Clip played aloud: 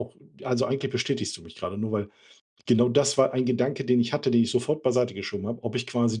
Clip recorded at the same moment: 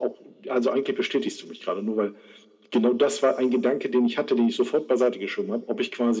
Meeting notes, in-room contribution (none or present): none